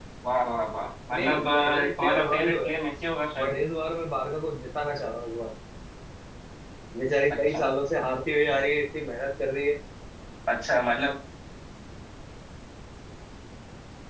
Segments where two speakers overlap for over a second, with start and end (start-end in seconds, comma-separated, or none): 1.1-2.7